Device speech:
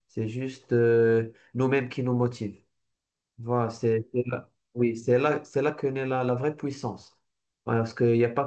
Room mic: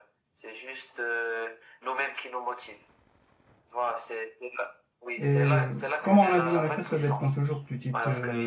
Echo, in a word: present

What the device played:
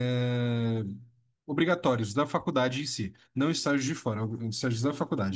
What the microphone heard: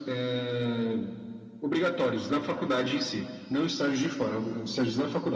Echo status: present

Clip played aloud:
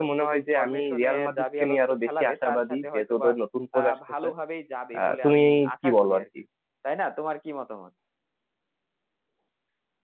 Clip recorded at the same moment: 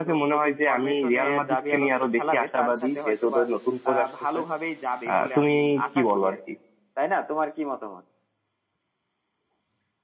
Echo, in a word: present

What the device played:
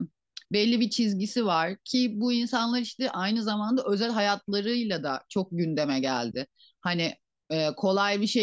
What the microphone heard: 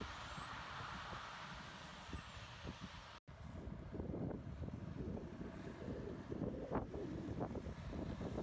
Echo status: none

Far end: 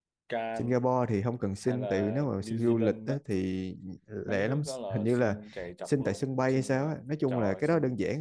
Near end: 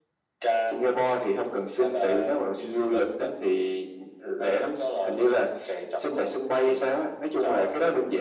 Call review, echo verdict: present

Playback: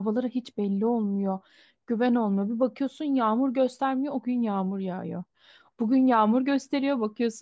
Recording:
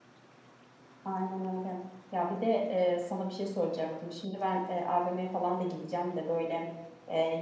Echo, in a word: none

